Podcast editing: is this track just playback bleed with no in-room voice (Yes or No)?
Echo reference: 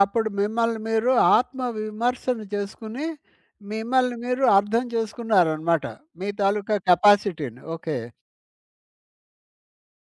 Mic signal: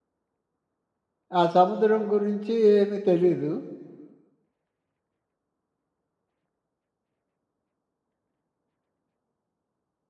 No